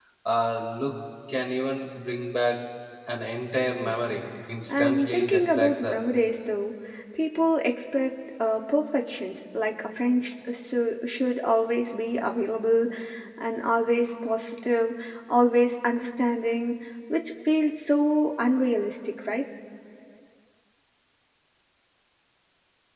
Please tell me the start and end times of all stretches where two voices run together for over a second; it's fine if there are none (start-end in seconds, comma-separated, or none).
4.7-6.0